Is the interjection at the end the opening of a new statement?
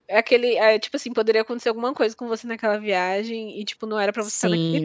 Yes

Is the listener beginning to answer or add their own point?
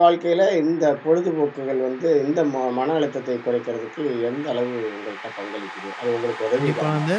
Yes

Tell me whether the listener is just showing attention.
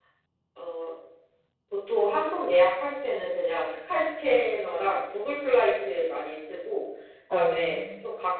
Yes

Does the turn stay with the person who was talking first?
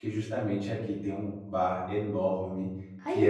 Yes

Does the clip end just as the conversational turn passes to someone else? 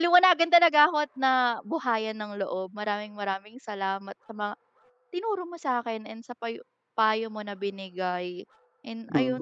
Yes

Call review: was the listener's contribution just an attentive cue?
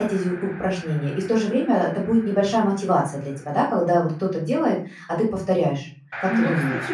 No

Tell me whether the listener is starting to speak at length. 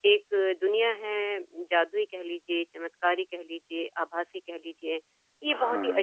No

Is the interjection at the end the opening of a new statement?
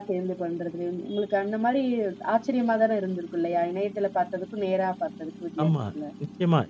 Yes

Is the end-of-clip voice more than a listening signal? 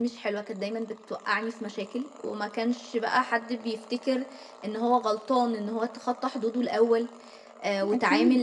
Yes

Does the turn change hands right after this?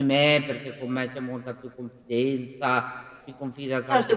Yes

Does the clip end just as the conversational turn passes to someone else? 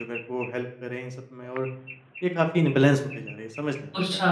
Yes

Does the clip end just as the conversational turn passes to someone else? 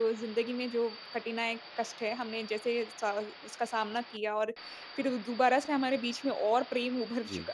No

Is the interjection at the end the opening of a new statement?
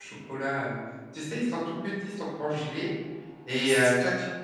No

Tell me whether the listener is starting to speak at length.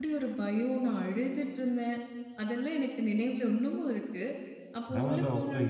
Yes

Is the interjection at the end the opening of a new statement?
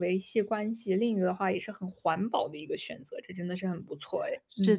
Yes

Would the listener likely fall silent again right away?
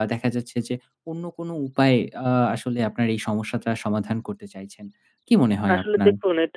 No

